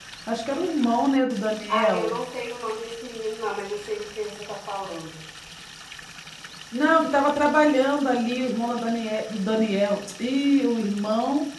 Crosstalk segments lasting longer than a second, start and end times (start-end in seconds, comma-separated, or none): none